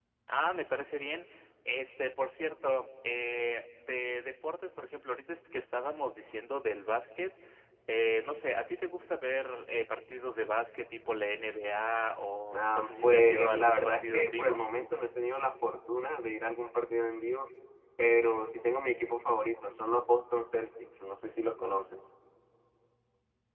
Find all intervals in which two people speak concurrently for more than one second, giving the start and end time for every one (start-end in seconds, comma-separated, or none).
12.5-14.6